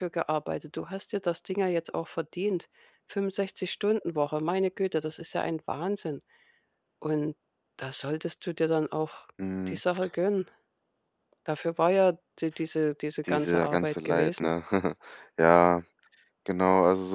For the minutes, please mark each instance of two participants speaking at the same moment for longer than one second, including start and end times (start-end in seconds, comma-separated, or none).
13.3-14.5